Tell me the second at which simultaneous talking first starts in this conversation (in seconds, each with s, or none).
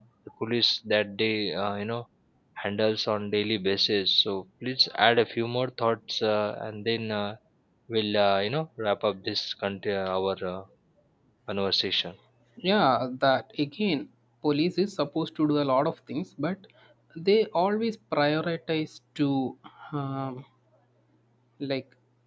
none